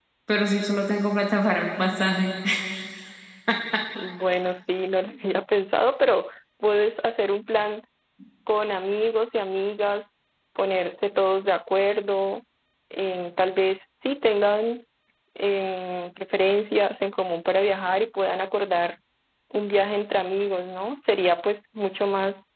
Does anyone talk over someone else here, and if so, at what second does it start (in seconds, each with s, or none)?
none